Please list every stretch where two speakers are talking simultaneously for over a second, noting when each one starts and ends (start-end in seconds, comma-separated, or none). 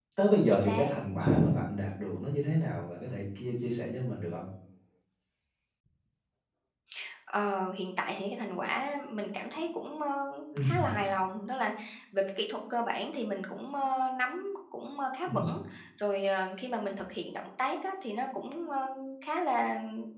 none